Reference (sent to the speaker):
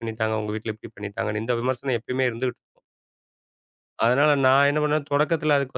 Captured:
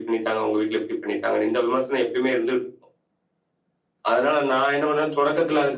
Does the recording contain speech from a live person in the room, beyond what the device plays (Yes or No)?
No